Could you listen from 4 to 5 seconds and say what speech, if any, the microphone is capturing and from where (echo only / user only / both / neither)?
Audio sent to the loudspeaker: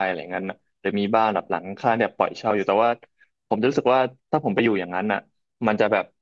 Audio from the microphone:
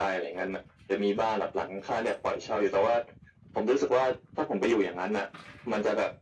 echo only